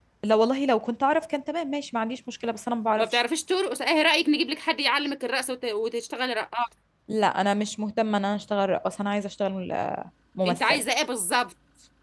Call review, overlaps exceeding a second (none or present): none